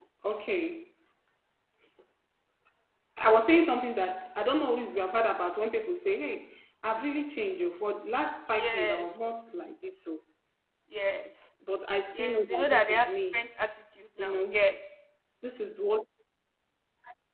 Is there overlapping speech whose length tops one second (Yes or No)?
Yes